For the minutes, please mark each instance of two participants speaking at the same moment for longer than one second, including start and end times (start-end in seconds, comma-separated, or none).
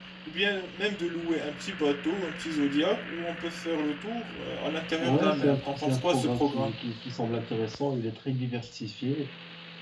5.0-6.7